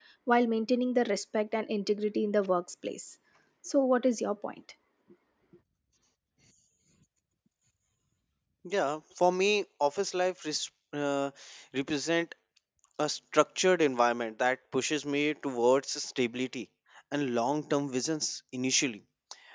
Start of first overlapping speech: none

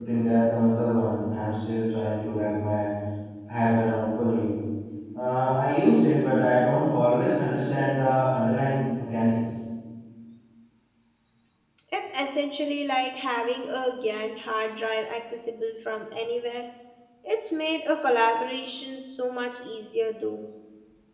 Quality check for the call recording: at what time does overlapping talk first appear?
none

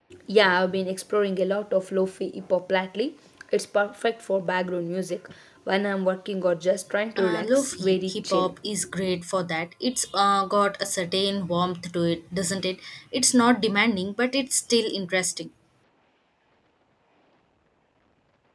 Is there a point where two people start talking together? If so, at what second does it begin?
7.2 s

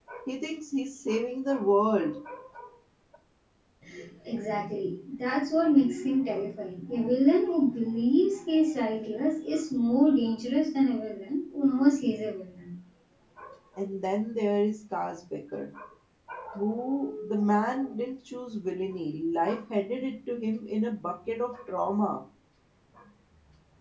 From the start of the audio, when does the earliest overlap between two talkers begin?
none

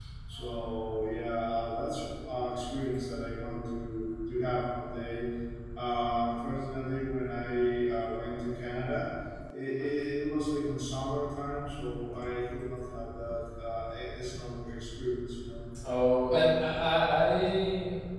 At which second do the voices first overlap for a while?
none

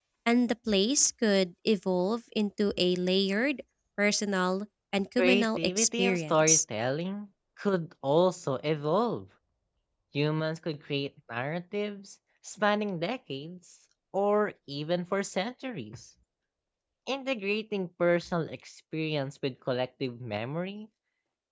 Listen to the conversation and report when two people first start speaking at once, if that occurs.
5.2 s

